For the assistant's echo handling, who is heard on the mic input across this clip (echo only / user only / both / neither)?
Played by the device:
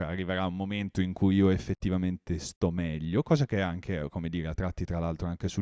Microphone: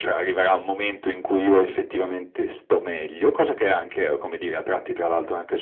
echo only